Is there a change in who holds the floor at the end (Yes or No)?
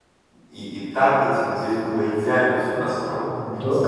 Yes